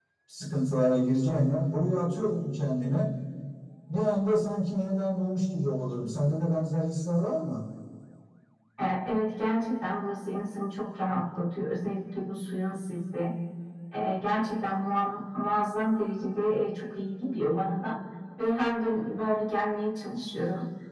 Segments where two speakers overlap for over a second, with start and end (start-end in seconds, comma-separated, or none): none